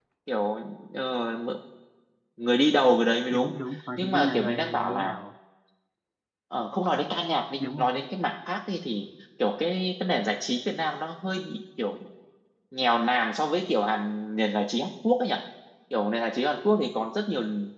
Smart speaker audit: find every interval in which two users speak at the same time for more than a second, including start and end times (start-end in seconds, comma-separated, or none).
4.0-5.2